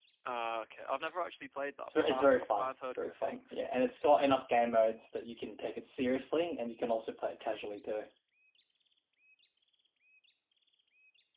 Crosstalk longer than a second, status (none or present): present